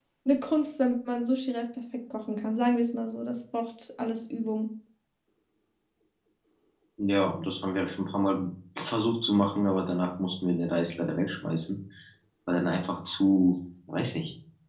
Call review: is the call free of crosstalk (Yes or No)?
Yes